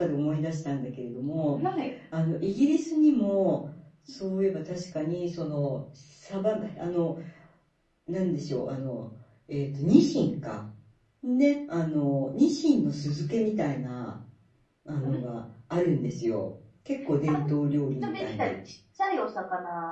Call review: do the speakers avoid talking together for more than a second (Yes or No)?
Yes